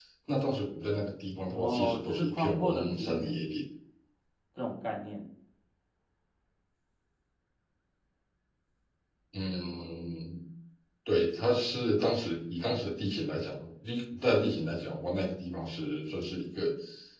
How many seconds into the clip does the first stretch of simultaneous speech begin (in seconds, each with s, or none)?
1.5 s